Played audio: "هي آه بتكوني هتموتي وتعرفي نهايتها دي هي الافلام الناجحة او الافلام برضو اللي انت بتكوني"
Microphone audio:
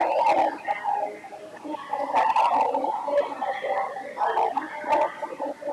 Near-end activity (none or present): none